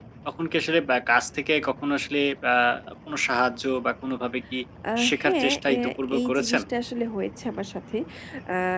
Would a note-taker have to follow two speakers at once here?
Yes, from 5.1 s

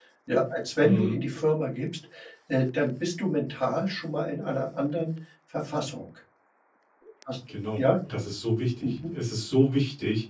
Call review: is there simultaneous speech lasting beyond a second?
No

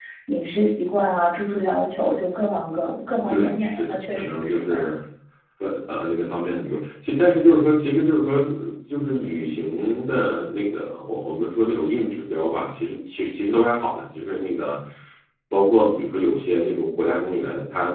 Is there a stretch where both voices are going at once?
Yes, from 3.3 s

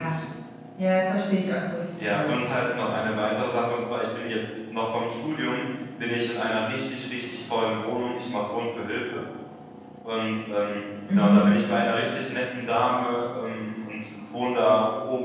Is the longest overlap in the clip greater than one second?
No

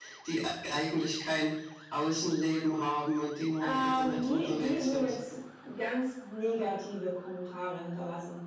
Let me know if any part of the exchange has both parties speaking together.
Yes, from 3.6 s

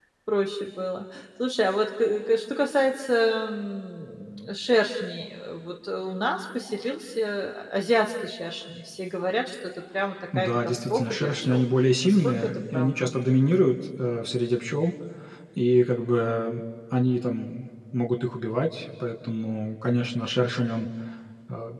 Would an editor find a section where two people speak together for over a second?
Yes, from 10.3 s

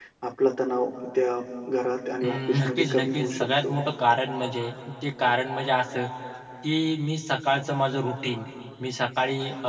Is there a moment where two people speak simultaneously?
Yes, from 2.2 s

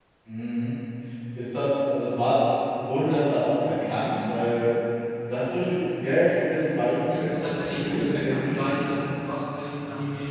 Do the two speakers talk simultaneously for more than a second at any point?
Yes, from 7.1 s

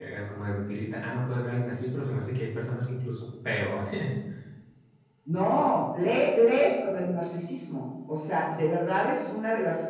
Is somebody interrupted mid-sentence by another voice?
No

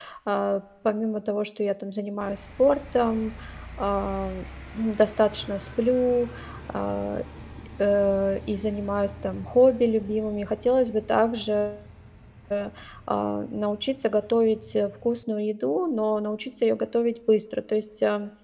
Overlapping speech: No

